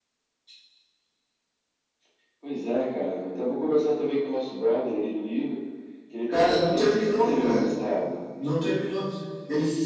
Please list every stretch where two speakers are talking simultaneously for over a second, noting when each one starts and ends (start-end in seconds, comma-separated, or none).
6.3-7.7